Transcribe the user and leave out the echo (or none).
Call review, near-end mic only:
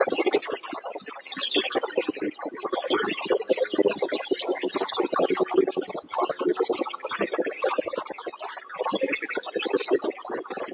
none